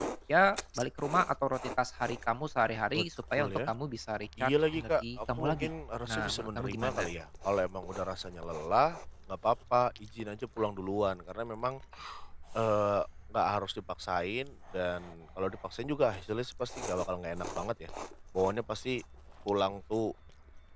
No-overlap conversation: No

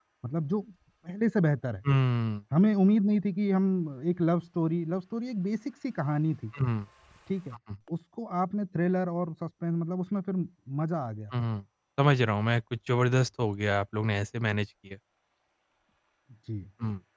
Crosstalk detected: No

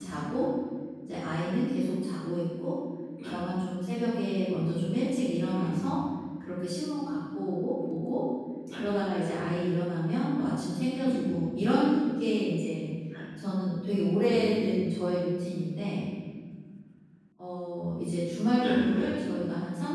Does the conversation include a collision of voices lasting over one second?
No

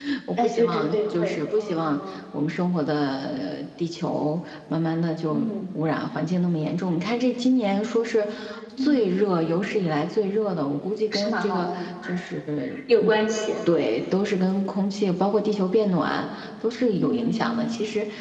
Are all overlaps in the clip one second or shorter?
No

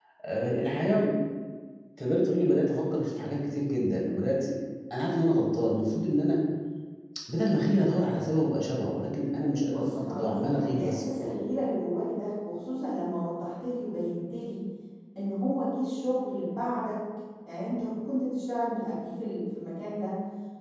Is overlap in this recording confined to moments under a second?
No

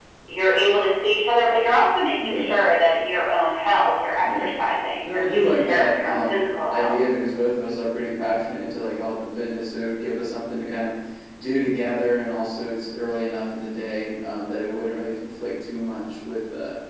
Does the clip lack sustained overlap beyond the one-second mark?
No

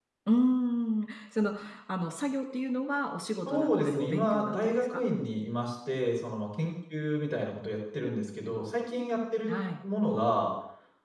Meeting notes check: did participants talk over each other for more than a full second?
Yes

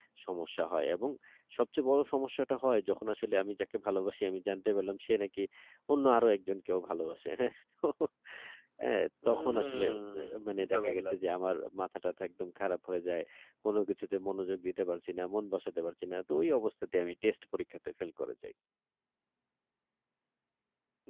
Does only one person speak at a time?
No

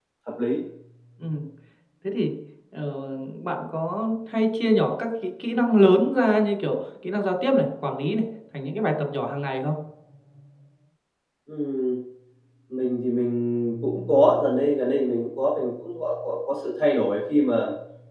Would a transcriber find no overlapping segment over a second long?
Yes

